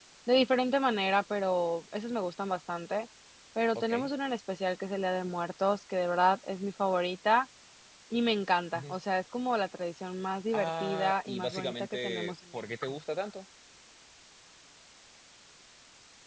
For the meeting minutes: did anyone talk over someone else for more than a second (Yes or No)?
Yes